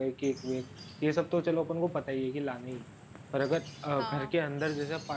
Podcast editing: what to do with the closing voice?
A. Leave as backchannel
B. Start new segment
A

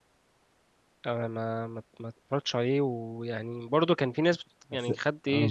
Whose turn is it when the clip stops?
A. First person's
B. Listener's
A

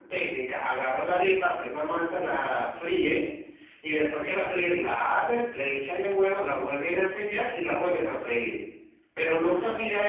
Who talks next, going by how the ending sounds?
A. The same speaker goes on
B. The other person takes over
A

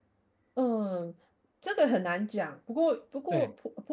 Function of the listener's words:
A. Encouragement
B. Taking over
A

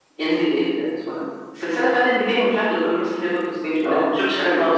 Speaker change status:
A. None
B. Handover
B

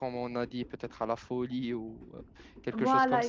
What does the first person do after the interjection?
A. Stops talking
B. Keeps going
A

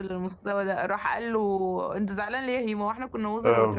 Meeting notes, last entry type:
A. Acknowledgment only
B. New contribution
B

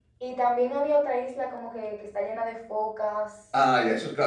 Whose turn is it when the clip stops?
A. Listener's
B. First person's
A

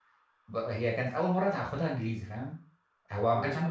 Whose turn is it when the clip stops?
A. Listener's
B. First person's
B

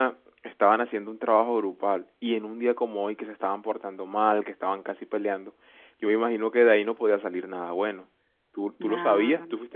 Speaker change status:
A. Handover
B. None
B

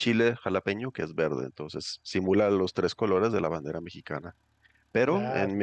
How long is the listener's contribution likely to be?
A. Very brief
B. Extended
A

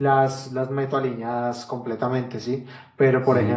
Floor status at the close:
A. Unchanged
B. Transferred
A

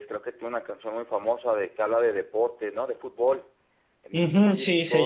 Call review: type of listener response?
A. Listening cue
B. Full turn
B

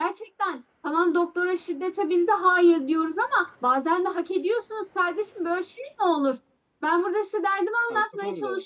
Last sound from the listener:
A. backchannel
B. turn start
A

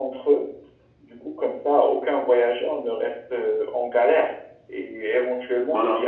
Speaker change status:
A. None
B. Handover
A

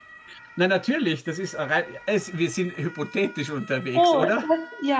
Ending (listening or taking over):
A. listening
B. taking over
B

